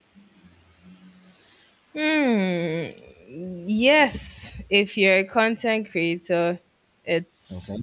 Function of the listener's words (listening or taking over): listening